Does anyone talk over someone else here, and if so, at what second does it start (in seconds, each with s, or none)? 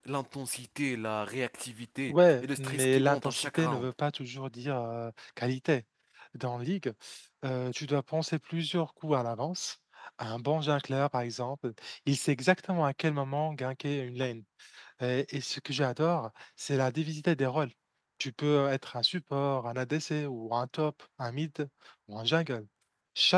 2.1 s